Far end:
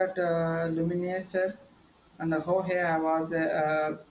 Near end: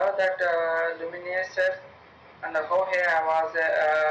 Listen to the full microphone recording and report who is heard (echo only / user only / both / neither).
echo only